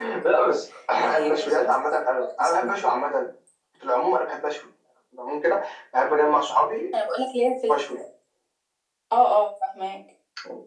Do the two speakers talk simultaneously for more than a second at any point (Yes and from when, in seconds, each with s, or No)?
Yes, from 1.2 s